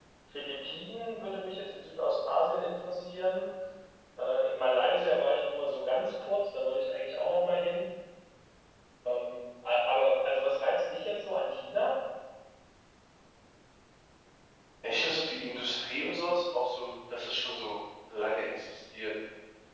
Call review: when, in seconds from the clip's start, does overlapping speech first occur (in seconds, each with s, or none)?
none